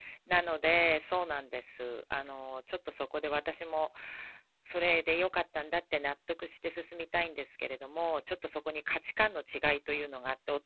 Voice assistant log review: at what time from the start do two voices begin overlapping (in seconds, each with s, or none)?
none